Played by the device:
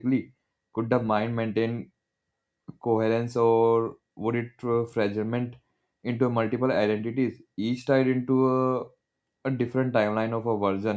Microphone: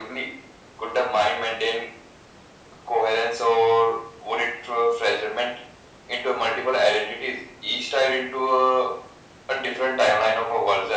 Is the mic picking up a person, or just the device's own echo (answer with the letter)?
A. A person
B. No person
B